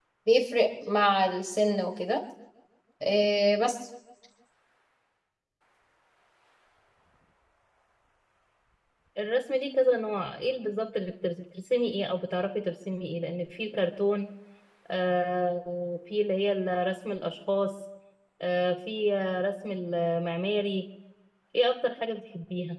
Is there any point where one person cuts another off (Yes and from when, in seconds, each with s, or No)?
No